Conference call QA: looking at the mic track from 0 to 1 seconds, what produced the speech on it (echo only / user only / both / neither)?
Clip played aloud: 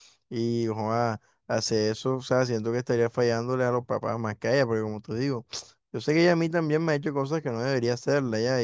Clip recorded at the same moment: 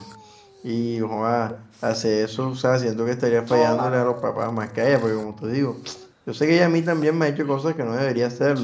echo only